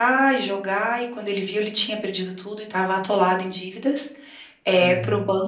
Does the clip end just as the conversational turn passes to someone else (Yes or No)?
No